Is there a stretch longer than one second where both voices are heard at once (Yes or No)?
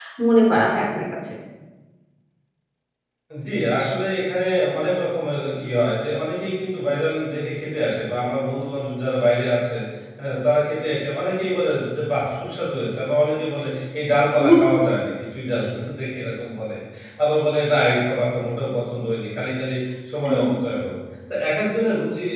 No